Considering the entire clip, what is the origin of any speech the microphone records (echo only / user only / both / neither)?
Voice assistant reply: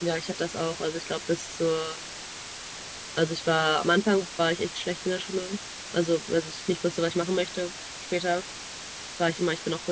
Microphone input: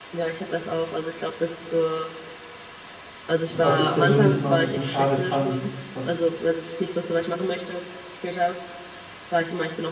both